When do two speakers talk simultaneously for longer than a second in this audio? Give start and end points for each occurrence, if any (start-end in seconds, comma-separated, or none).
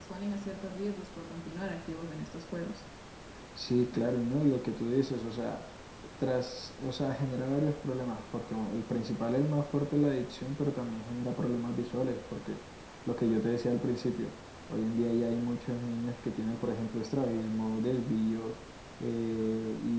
none